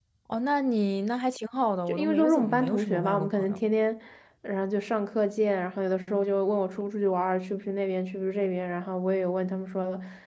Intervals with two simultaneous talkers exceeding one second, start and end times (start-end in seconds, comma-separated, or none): 1.9-3.6